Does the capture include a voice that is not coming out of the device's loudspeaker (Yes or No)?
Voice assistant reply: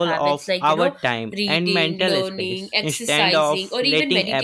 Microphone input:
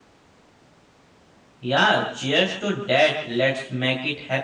Yes